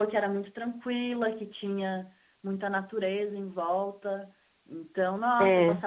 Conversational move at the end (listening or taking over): listening